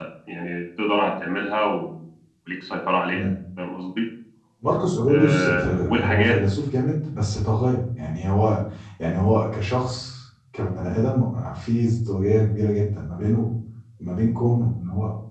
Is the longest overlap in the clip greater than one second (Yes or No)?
Yes